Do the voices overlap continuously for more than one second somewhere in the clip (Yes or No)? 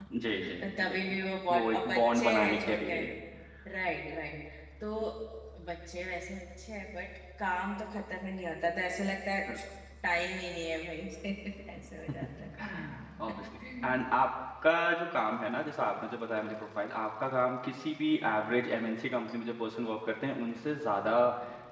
Yes